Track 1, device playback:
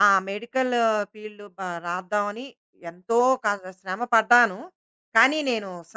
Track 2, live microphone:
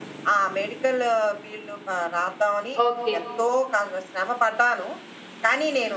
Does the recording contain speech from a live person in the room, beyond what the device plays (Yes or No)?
Yes